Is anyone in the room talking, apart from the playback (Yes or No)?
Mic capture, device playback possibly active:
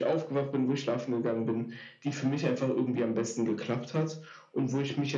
No